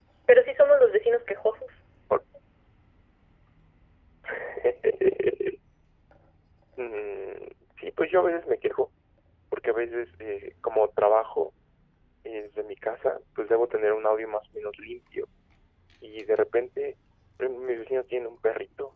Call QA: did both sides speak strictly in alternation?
Yes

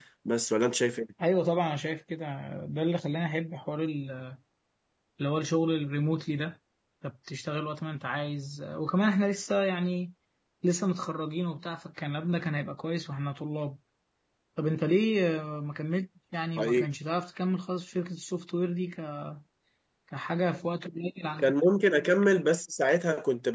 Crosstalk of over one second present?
No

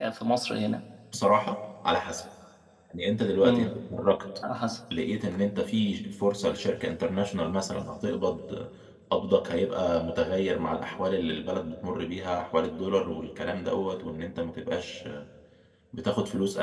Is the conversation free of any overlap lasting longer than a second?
Yes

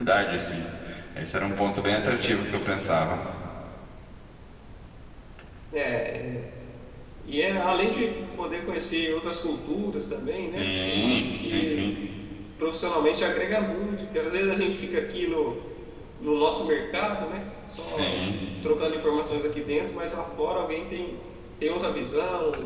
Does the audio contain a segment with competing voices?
Yes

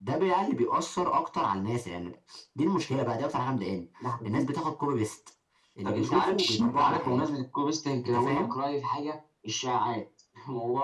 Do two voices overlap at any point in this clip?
Yes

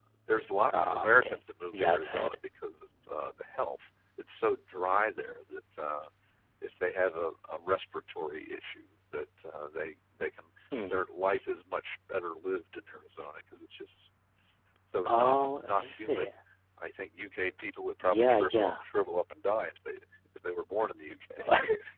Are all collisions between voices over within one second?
No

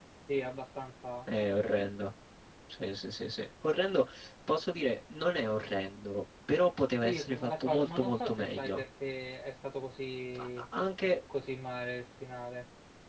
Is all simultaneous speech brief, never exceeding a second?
No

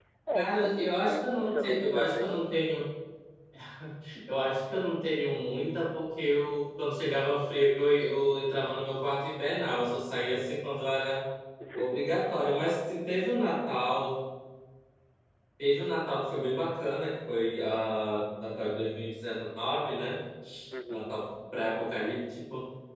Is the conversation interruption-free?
No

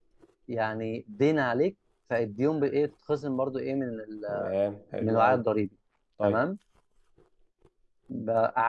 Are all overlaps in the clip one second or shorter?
Yes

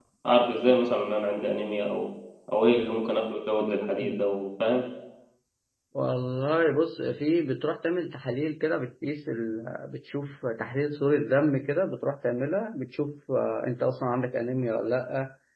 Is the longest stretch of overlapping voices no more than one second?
Yes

